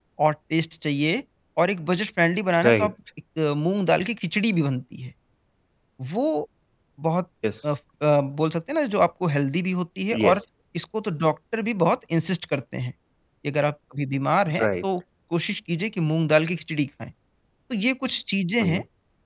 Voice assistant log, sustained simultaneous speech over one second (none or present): none